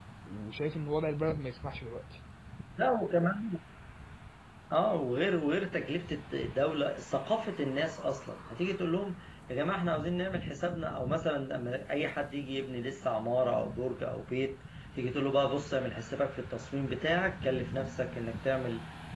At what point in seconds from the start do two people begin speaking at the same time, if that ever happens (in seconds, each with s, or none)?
none